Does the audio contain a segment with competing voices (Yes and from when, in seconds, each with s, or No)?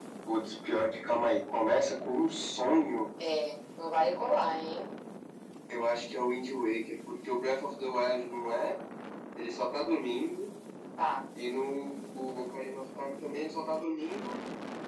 No